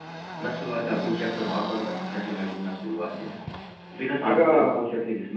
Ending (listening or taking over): listening